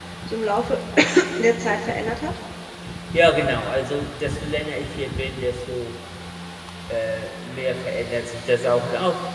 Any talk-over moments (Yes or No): No